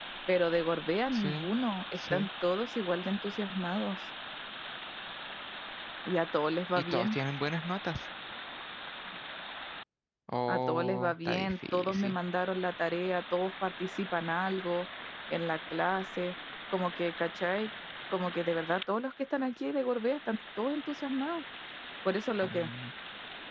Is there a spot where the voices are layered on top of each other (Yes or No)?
Yes